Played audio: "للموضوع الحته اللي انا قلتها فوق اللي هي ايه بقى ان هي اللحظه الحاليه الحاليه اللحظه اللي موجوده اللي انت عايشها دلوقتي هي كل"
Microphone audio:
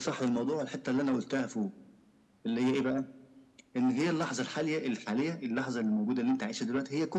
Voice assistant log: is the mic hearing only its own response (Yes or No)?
Yes